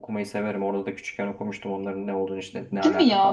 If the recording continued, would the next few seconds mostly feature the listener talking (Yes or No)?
Yes